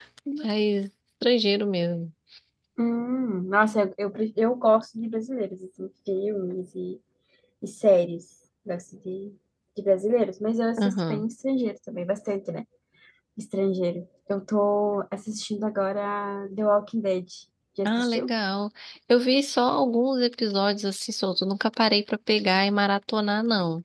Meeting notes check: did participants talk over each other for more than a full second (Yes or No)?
No